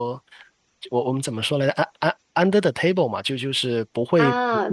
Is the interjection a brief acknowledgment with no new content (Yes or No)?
No